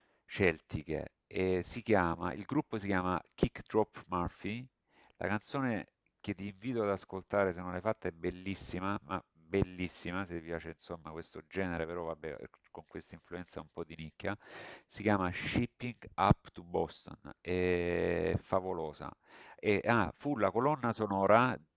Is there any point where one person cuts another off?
No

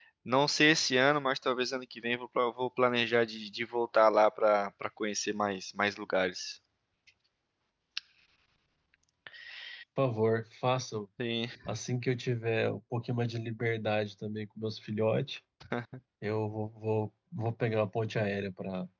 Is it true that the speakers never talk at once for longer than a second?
Yes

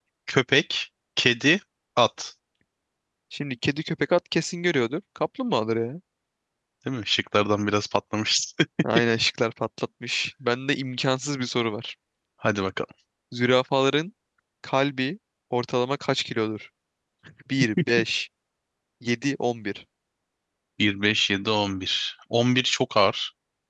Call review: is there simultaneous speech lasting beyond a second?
No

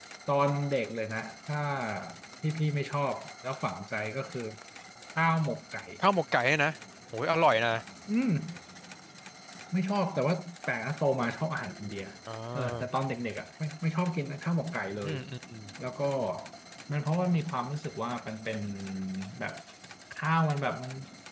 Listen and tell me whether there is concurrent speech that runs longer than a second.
No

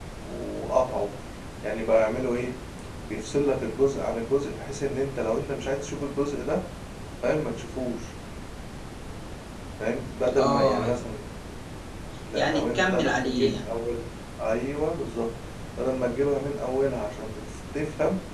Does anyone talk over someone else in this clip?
Yes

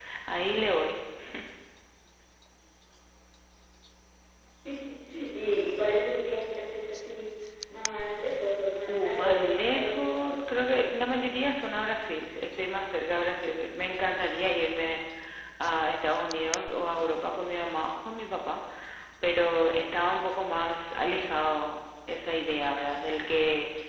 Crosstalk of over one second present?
Yes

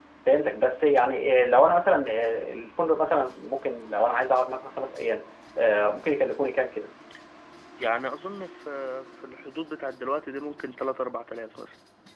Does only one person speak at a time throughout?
Yes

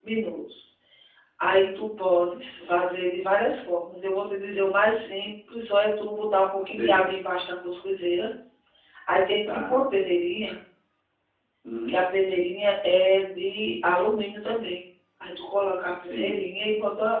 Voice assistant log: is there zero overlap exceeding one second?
Yes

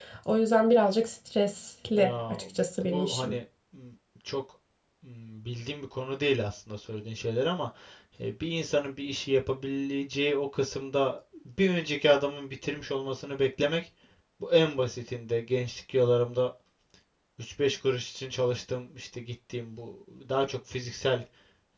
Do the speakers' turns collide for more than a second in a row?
No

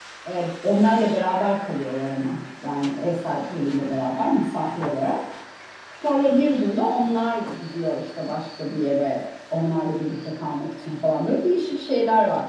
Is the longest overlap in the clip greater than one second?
No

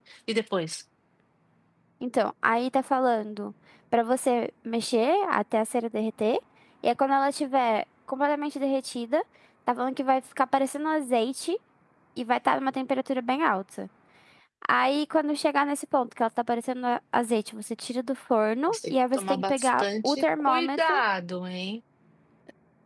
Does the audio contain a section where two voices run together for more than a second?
Yes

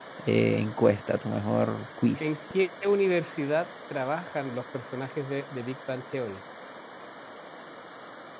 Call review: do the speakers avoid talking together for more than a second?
Yes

